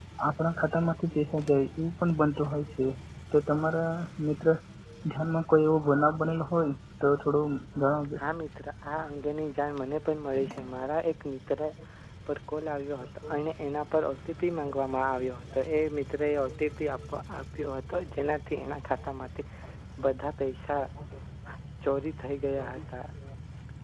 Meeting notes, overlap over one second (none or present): none